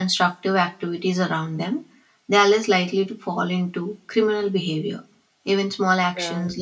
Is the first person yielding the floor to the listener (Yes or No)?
No